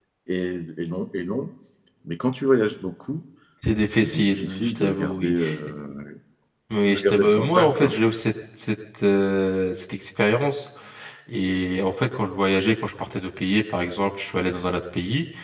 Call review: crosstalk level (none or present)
present